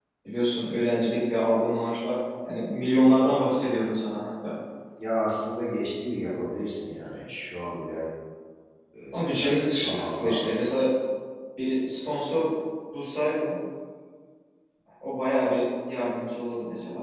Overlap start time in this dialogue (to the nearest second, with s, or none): 9 s